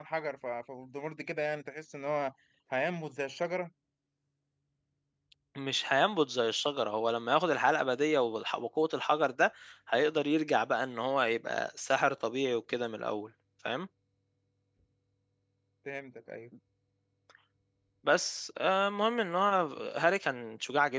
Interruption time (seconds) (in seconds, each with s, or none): none